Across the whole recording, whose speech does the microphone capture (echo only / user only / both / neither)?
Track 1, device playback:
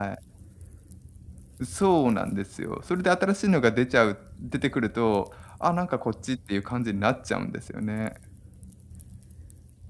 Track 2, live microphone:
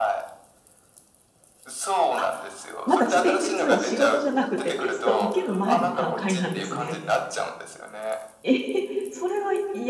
both